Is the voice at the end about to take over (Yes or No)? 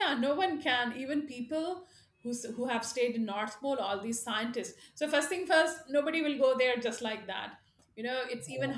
No